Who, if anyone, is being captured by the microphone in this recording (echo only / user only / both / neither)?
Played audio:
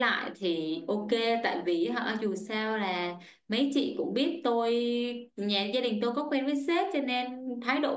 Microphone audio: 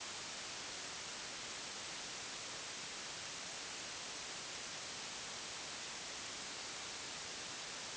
neither